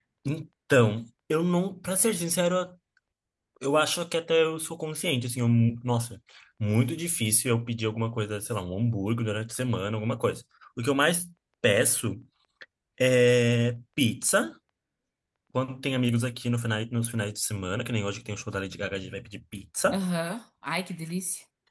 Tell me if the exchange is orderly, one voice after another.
Yes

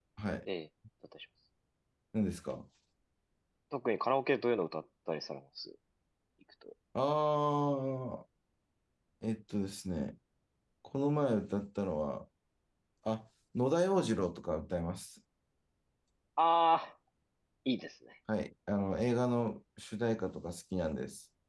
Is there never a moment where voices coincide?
Yes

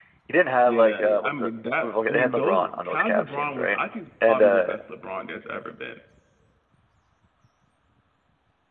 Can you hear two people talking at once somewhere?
Yes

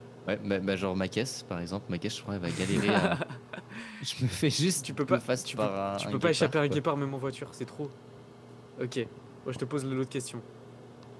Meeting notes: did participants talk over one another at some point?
Yes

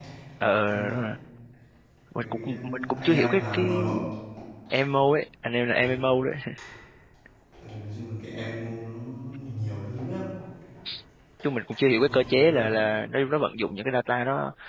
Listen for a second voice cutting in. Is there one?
Yes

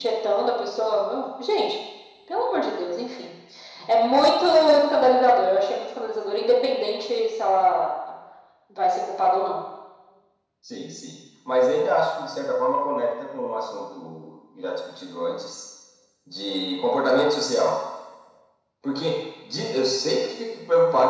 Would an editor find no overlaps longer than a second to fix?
Yes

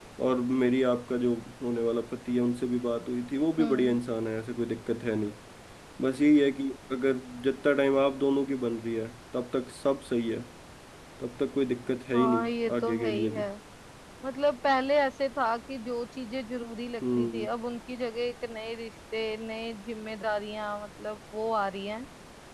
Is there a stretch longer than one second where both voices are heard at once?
Yes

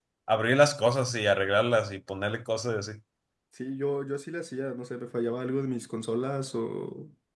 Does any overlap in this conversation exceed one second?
No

